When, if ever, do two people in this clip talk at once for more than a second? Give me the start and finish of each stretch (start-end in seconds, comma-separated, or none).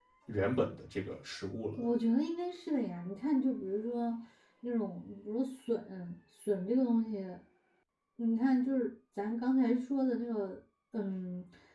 none